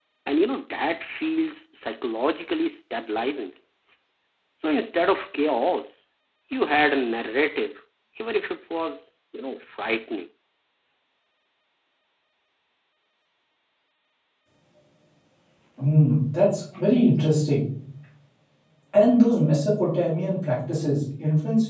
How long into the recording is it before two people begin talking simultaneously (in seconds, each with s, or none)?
none